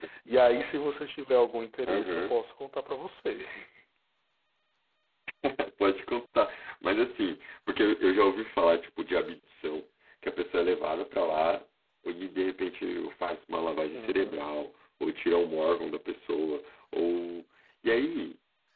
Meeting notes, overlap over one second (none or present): none